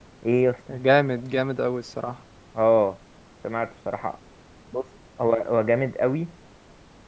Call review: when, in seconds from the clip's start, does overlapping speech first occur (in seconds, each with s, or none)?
none